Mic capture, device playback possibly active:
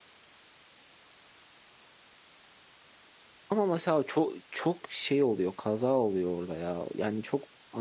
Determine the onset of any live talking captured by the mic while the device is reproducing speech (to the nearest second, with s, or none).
3 s